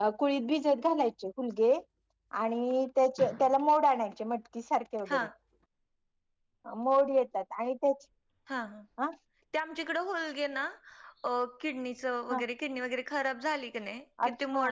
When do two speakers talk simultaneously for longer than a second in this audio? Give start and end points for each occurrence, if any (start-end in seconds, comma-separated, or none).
none